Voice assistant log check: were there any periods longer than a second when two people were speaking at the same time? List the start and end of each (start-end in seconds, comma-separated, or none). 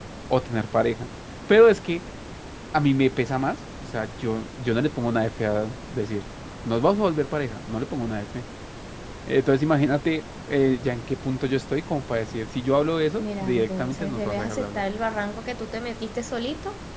13.2-14.8